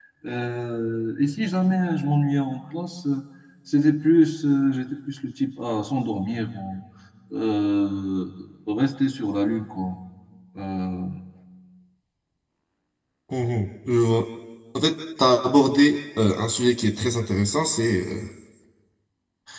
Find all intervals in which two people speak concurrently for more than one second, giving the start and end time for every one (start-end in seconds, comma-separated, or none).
none